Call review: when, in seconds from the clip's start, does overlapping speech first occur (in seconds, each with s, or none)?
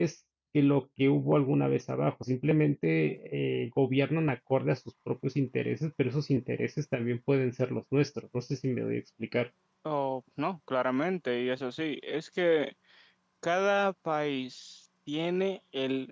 none